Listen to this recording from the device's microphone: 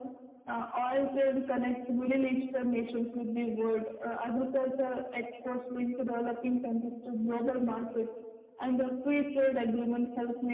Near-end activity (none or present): none